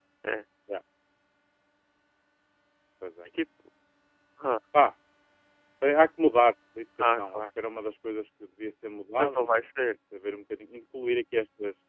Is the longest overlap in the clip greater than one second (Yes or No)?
No